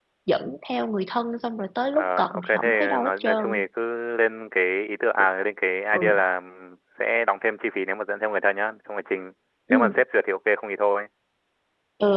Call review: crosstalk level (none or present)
present